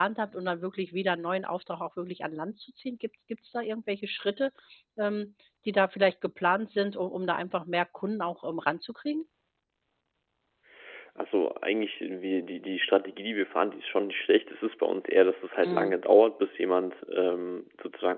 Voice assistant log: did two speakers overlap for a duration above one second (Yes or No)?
No